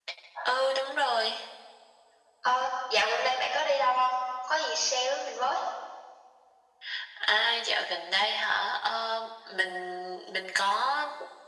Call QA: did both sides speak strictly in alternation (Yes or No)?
Yes